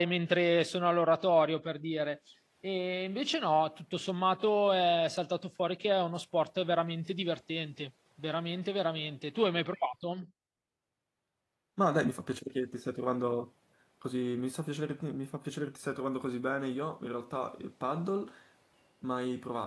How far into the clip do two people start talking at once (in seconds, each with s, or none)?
none